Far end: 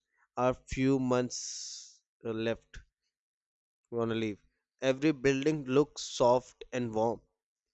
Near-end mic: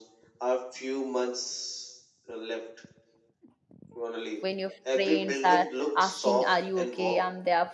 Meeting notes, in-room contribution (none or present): present